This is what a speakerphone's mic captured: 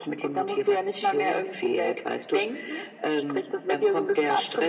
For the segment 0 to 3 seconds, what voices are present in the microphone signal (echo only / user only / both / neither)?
echo only